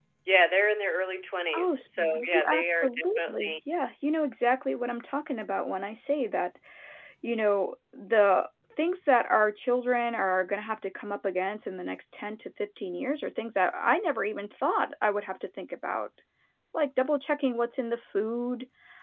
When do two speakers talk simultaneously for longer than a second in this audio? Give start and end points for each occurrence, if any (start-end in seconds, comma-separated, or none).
1.6-3.5